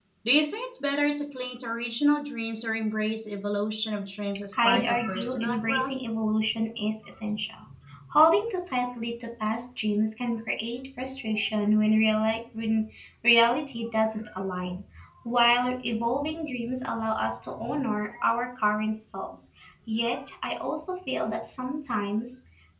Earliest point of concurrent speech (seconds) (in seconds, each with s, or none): 4.5 s